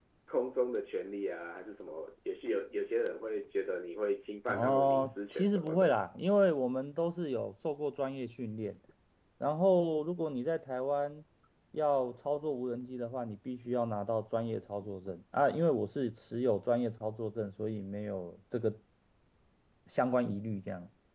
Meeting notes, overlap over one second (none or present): present